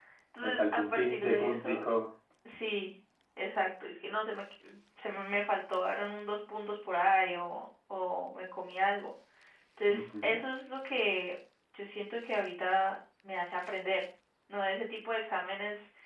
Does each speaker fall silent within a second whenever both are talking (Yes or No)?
No